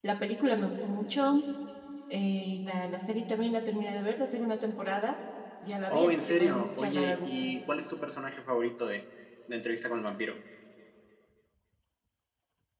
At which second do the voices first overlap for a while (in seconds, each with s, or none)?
5.9 s